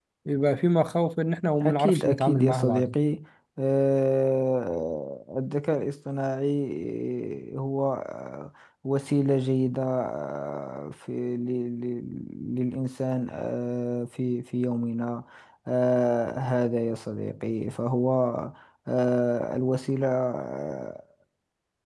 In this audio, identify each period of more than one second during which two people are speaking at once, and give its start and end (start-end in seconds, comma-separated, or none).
1.6-2.9